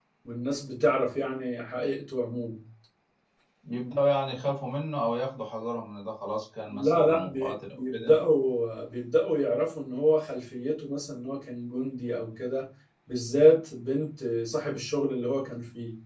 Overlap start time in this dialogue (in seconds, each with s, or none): 6.7 s